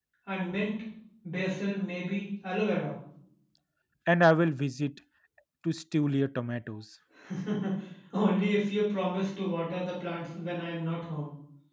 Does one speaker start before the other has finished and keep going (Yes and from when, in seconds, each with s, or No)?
No